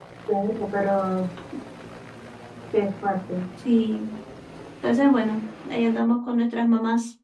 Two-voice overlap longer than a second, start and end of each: none

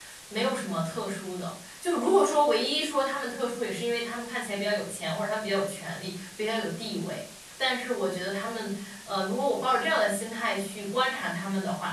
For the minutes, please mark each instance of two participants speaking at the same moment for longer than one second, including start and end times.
none

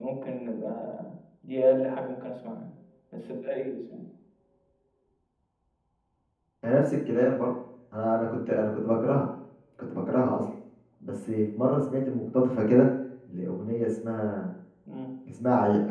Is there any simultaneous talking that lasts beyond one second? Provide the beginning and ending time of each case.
none

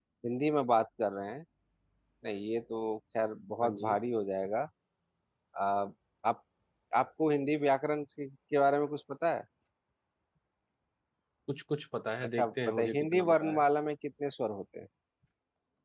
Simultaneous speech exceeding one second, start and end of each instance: 12.3-13.6

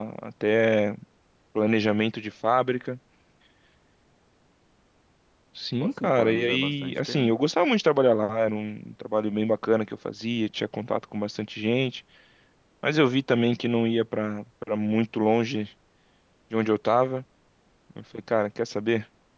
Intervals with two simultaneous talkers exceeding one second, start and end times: 5.8-7.3

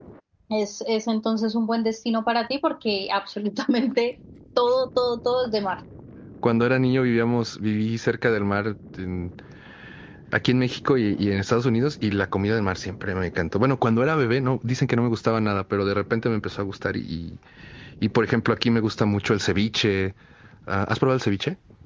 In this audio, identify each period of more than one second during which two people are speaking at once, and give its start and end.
none

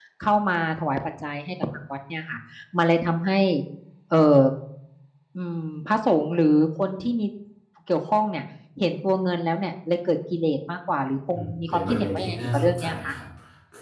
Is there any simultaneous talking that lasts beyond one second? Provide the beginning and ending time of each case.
11.3-13.1

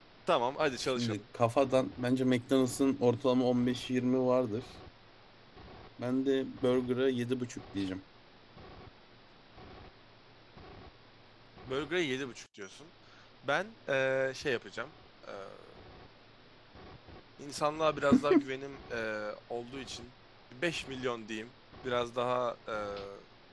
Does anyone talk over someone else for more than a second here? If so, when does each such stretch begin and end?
none

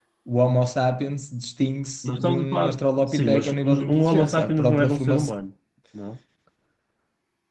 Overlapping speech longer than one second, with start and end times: 2.0-5.4

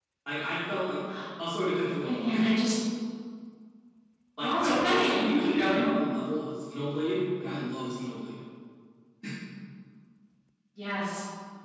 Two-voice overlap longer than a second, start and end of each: 4.4-5.8

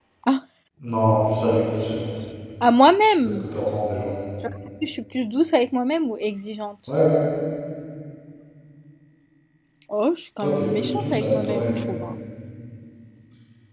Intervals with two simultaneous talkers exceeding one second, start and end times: 10.4-11.8

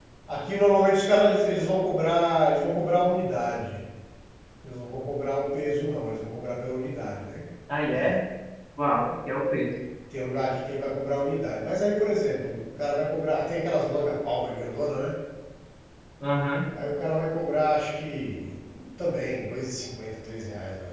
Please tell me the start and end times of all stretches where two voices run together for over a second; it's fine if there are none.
none

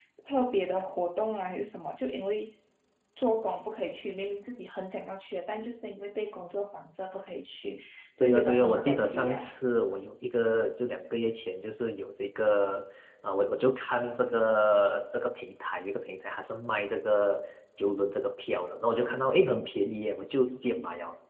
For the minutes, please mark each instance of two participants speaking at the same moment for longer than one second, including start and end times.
8.2-9.5

